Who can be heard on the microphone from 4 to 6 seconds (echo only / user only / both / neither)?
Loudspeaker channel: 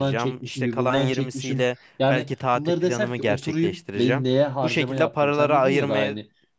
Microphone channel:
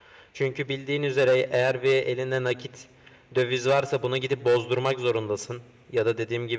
user only